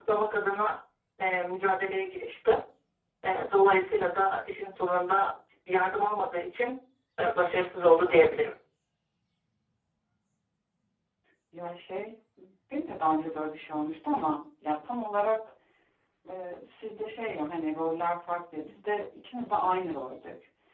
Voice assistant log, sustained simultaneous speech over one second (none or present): none